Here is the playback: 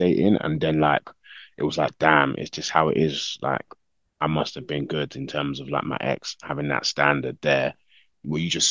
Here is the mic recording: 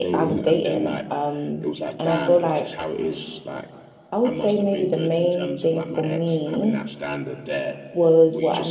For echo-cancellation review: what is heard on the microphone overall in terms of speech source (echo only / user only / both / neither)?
both